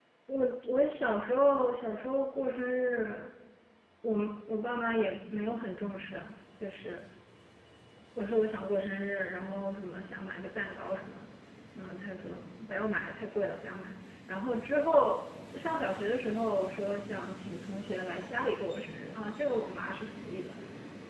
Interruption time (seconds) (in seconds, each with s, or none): none